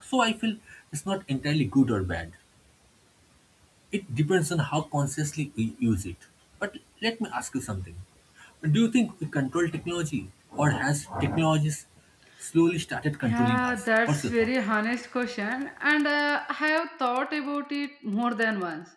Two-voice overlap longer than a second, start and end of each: 13.3-14.5

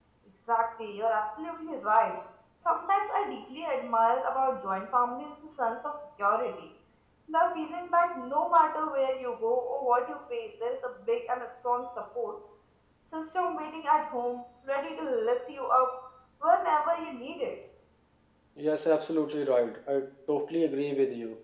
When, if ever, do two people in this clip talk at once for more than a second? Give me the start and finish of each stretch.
none

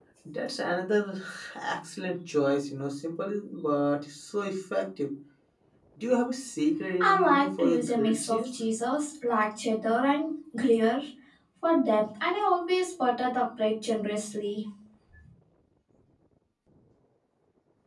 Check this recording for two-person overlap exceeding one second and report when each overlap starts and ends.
7.0-8.6

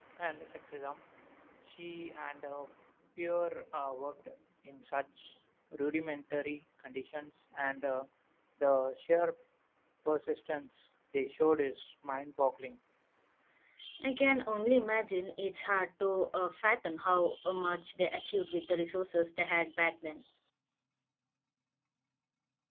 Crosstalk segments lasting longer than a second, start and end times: none

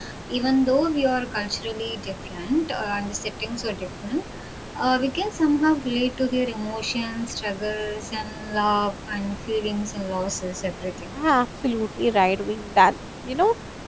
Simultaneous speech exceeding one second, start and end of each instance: none

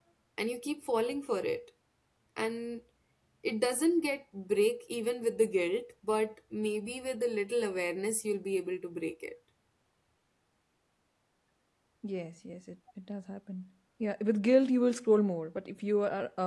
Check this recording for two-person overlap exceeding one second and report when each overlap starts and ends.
none

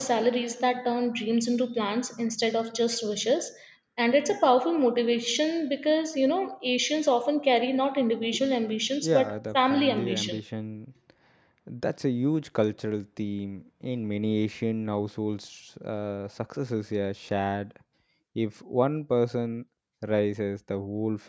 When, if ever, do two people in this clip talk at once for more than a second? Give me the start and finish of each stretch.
9.0-10.3

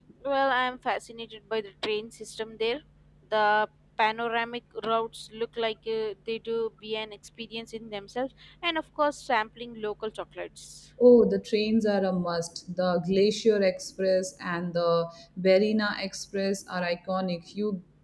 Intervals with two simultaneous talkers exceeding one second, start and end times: none

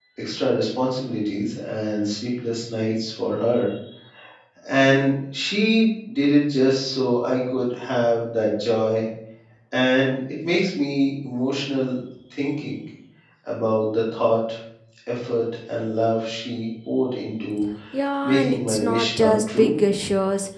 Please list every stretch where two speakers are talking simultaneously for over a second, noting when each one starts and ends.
18.2-19.7

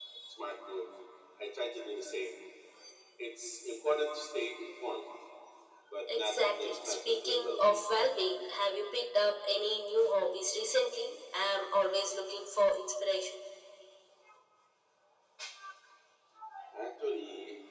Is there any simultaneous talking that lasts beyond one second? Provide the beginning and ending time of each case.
6.1-7.9

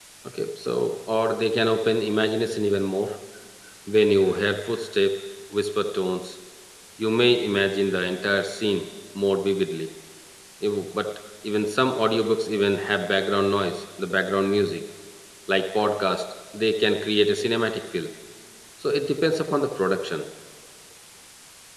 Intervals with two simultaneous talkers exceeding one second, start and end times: none

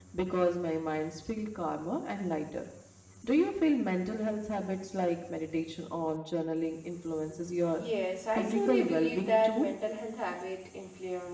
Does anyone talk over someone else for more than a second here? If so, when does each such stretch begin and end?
8.3-9.7

